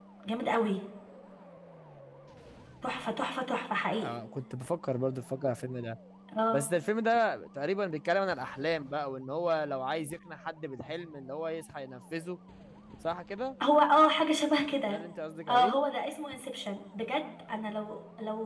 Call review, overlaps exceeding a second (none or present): none